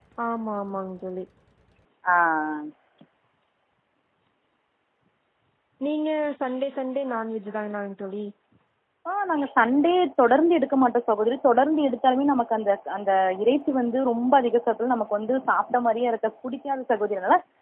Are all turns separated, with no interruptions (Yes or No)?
Yes